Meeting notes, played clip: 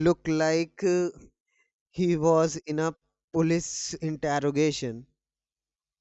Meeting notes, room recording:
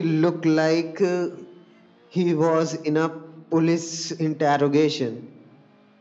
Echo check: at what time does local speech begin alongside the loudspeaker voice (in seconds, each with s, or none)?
none